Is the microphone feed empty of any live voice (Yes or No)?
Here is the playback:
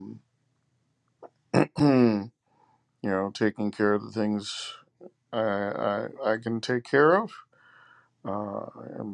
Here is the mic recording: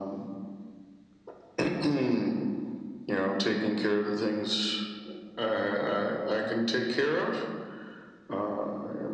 Yes